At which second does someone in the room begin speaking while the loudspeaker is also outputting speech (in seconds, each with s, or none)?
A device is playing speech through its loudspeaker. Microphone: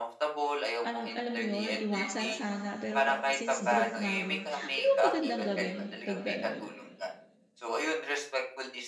0.8 s